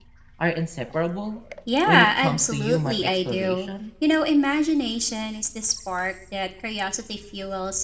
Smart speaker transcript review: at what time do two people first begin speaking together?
1.7 s

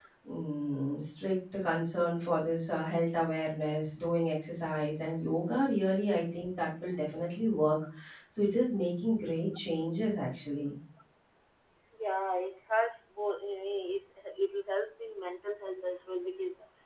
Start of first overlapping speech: none

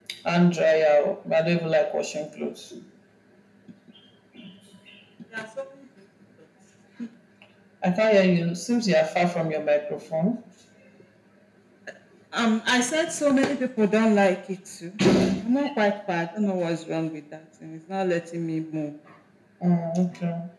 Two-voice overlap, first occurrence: none

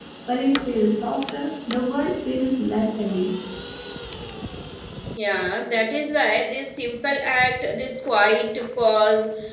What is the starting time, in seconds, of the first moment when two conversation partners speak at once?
none

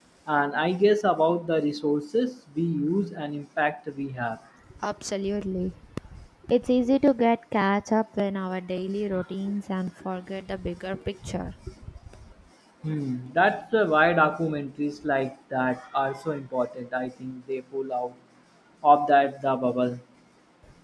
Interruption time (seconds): none

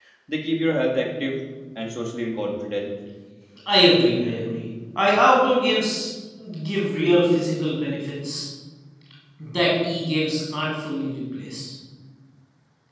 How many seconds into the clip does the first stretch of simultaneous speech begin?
none

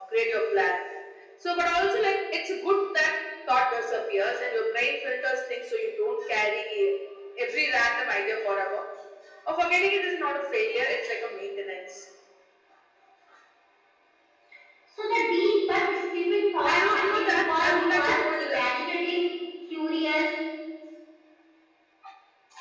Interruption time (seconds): 16.6 s

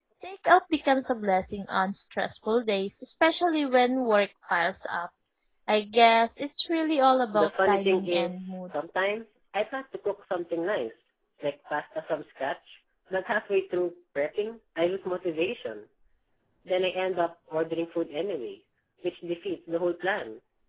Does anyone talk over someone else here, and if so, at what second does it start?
7.3 s

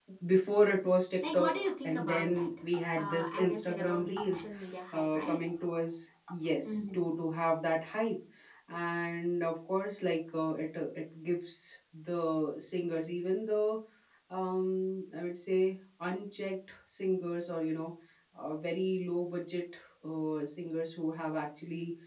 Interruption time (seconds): 1.3 s

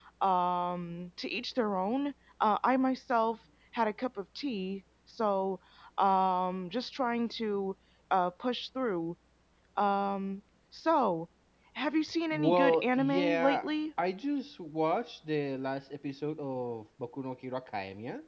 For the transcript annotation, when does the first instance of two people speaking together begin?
12.3 s

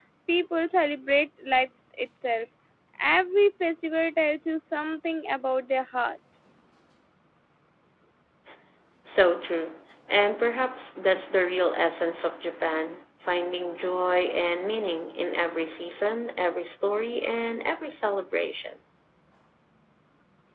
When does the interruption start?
none

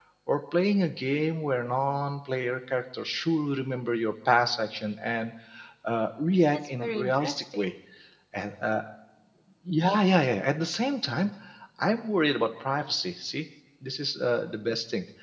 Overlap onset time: 6.5 s

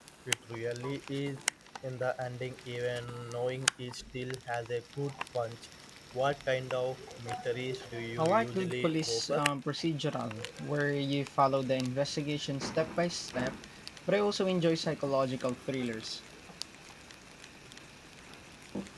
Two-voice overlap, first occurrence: 8.2 s

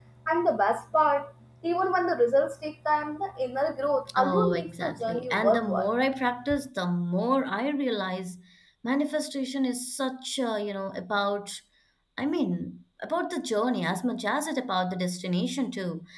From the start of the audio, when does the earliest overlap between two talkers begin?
4.1 s

